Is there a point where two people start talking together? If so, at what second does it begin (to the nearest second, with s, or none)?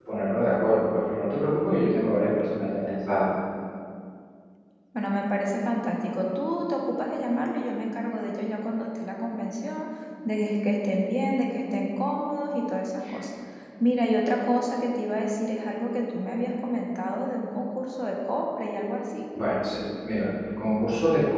none